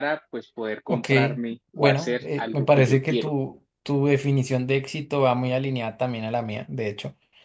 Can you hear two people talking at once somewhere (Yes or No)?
Yes